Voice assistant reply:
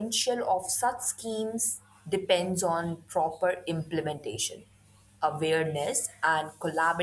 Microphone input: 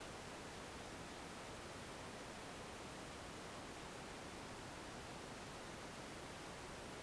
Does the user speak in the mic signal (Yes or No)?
No